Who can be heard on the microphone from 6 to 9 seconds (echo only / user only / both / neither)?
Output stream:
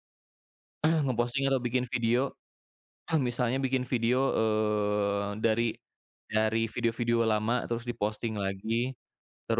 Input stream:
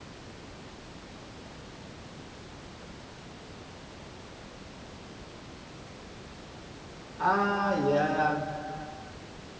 user only